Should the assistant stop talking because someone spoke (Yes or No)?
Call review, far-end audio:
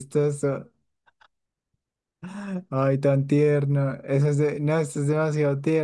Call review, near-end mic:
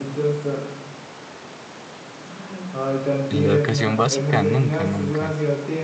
Yes